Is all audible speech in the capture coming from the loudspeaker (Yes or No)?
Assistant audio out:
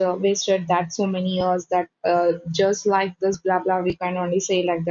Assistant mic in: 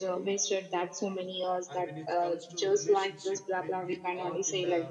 No